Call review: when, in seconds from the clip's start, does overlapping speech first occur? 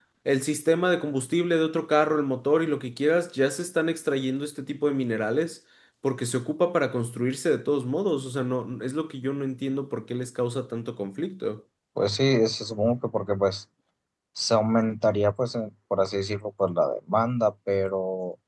none

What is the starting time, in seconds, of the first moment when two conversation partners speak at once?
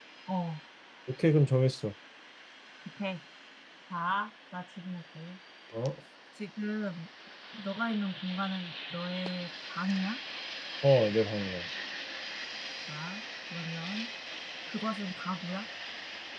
none

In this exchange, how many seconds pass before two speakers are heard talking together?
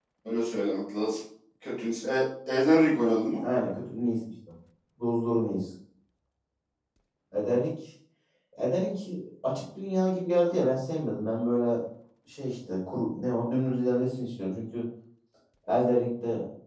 none

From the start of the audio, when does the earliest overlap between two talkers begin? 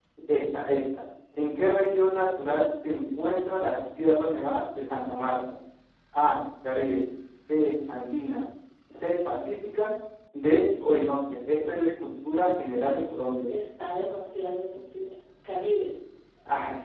none

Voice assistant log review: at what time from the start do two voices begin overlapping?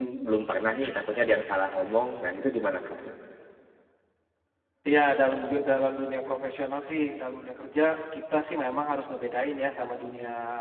none

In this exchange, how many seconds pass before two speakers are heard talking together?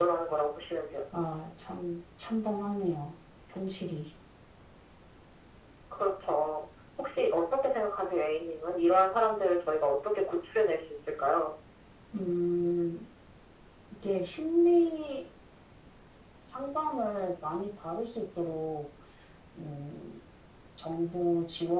none

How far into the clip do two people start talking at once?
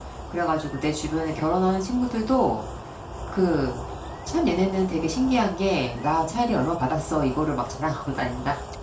none

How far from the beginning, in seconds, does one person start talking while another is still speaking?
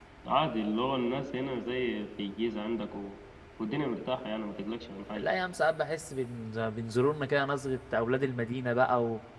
none

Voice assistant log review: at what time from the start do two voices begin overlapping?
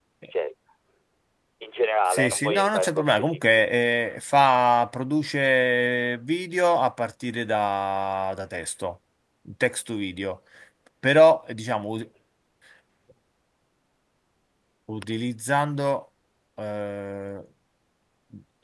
2.0 s

